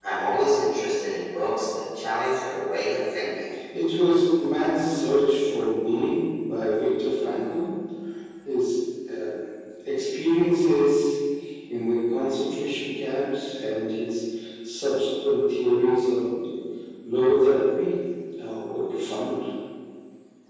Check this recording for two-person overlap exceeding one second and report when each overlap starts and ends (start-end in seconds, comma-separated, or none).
none